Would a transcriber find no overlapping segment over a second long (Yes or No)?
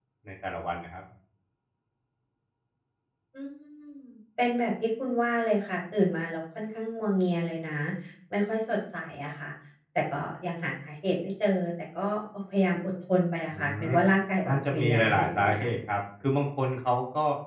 No